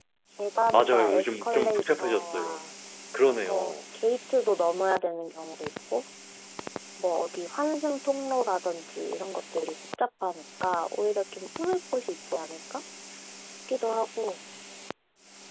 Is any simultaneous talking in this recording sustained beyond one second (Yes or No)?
Yes